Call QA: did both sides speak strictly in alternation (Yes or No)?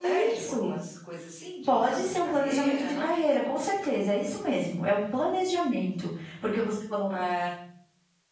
No